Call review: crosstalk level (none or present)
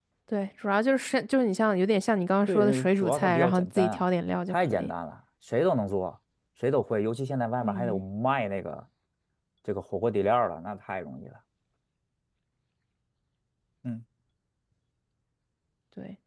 present